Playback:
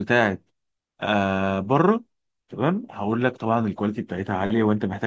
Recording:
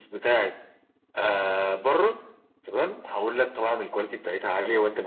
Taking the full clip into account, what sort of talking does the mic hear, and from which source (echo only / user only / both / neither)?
echo only